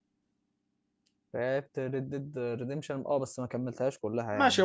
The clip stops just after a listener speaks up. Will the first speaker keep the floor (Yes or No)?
No